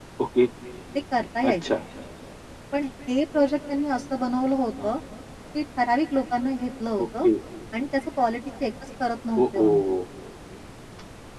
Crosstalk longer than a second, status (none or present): none